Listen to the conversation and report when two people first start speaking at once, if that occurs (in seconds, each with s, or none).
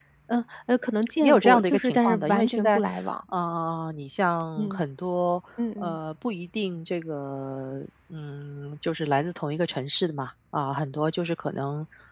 1.2 s